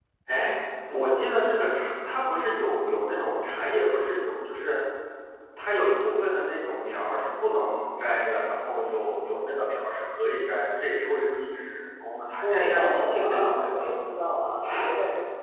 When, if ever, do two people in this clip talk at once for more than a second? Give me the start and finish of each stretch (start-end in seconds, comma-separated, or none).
12.4-13.8